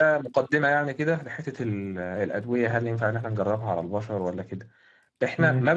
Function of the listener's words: listening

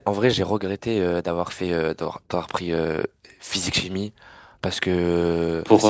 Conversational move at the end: listening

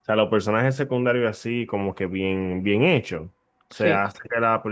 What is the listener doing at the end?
listening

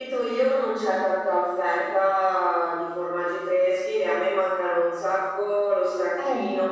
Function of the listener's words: listening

